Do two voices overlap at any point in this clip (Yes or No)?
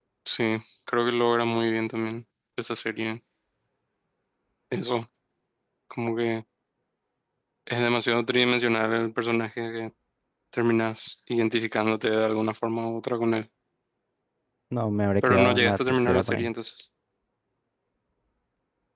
Yes